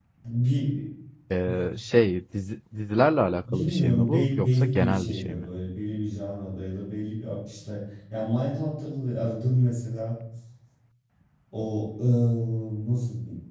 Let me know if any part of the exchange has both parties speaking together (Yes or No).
Yes